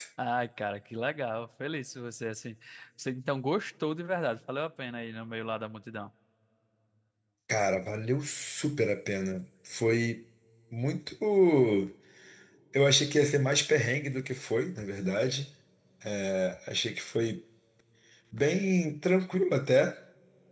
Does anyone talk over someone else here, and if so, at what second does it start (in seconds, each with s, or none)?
none